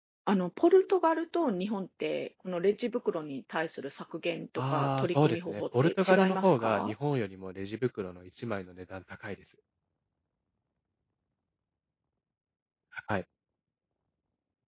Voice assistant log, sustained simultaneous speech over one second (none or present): present